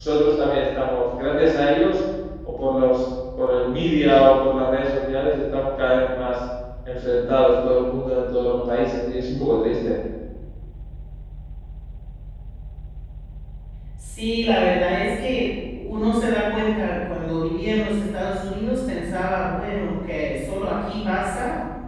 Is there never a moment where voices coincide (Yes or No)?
Yes